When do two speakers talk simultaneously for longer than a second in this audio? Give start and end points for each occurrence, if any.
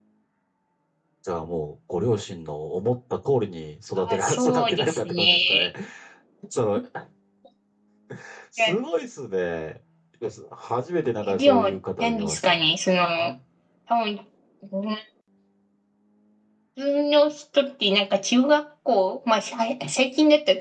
4.0-5.7, 11.2-12.6

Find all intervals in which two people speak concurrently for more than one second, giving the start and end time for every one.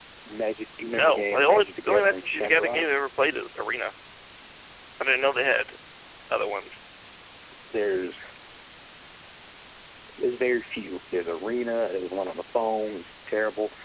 0.9-2.9

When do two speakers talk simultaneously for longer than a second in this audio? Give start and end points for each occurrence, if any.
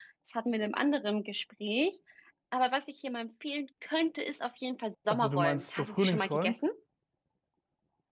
5.1-6.5

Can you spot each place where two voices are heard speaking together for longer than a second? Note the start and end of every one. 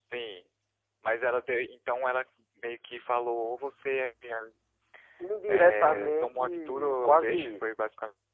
5.5-7.6

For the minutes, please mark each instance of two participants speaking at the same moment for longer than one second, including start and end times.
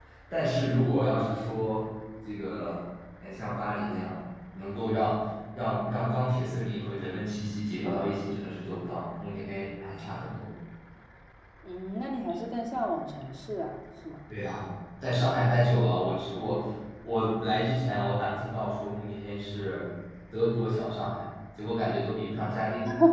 none

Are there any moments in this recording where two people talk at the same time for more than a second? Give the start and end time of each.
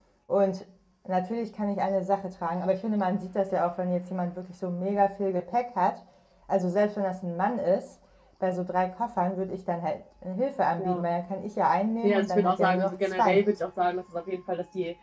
12.0-13.4

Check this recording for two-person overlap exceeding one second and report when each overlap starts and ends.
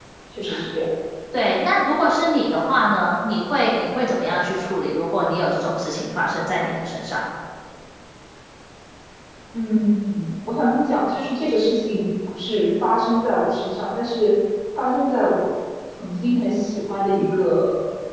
none

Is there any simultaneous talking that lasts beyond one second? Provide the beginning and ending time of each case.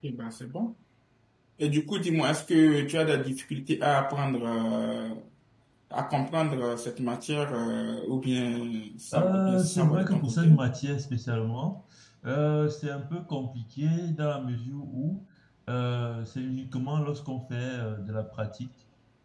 9.1-10.6

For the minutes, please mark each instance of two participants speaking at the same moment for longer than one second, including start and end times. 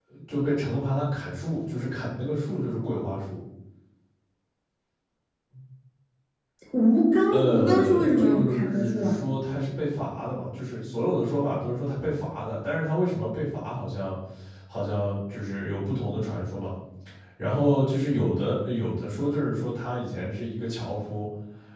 7.3-9.2

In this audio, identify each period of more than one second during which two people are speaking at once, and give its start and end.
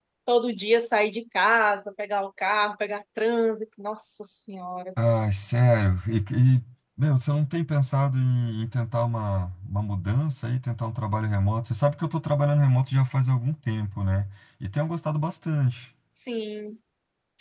none

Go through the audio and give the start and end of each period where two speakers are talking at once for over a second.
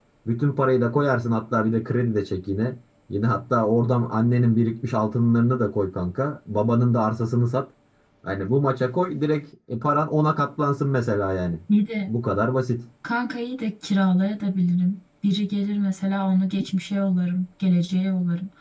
none

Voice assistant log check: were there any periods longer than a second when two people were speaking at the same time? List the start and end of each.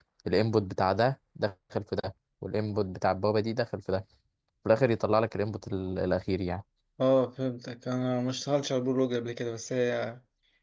none

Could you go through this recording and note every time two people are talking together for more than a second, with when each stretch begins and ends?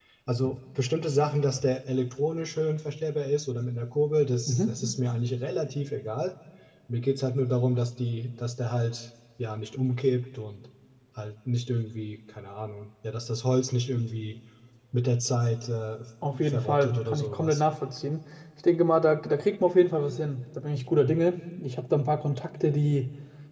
16.4-17.6

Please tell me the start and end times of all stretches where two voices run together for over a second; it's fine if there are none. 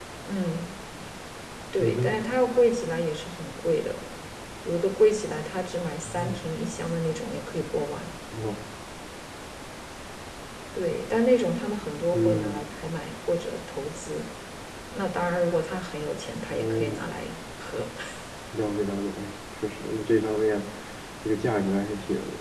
none

